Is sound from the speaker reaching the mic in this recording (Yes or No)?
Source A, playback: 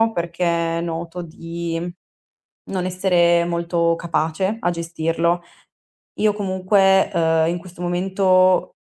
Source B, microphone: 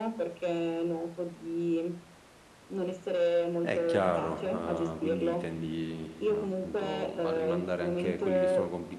Yes